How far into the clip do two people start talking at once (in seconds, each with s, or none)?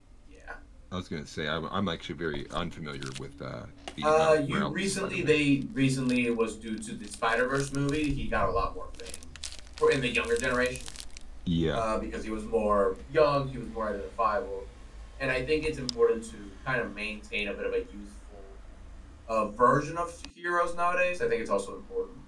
4.0 s